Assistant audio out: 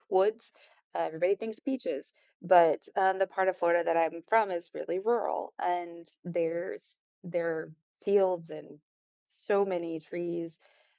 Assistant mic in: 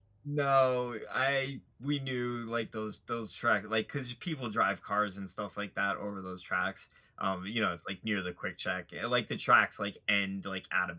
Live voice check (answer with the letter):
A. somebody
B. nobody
A